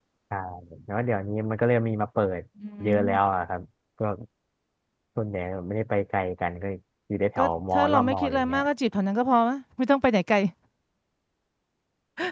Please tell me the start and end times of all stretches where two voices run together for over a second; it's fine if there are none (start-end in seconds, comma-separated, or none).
7.4-8.6